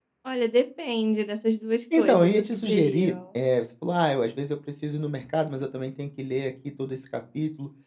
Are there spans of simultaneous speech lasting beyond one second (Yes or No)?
Yes